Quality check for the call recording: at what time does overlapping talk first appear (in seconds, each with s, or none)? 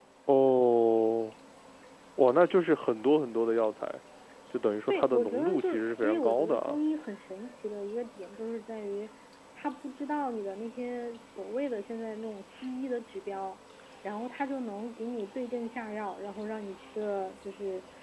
4.9 s